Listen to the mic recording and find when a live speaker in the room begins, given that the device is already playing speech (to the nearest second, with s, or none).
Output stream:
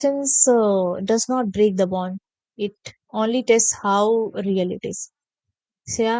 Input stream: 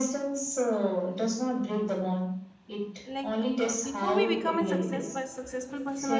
3 s